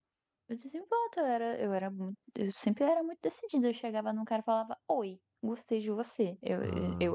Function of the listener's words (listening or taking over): taking over